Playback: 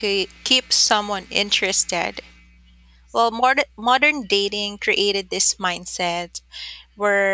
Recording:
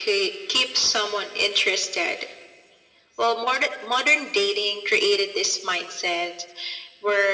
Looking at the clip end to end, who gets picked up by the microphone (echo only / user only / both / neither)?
echo only